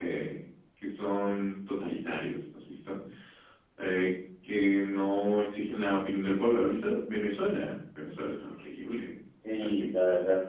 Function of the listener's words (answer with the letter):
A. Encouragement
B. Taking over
B